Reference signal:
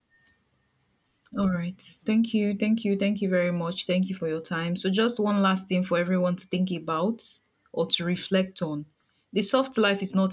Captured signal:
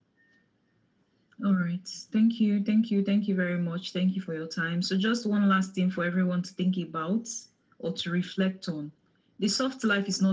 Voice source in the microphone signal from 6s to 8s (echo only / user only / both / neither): echo only